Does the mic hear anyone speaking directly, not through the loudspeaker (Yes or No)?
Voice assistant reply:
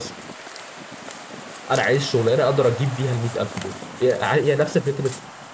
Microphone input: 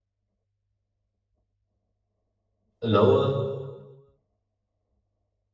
Yes